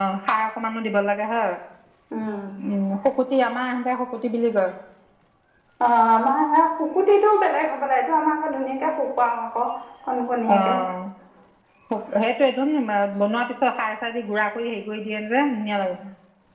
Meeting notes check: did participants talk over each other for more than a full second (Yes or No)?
No